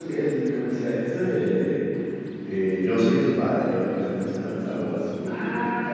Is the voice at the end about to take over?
Yes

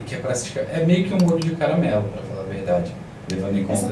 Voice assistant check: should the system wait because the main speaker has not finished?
No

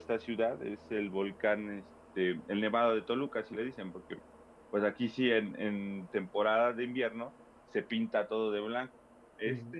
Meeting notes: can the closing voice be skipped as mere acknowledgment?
Yes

